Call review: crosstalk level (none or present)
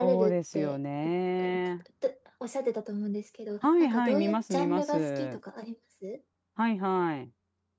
present